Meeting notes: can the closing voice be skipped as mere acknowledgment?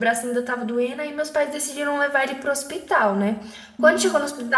Yes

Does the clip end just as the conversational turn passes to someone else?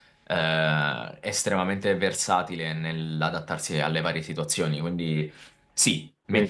No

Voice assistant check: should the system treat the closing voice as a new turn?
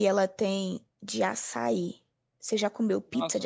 Yes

